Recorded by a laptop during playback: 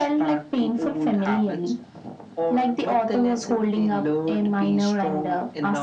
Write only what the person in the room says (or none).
none